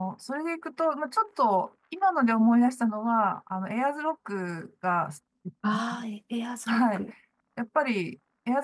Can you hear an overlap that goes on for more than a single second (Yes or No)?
No